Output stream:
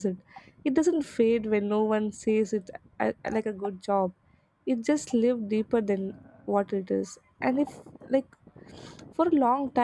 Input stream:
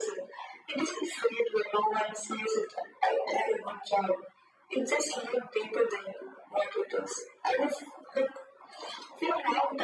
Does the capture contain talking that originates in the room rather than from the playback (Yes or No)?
No